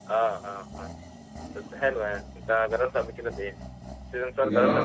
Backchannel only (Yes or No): No